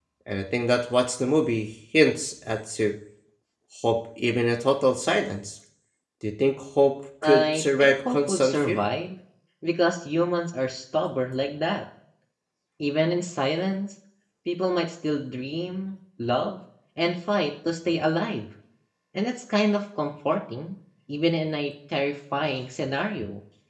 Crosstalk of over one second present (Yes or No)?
Yes